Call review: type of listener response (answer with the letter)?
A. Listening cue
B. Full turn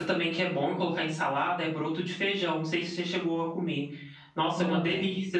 A